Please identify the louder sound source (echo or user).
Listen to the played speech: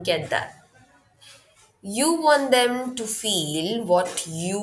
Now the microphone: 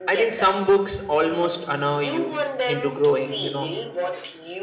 user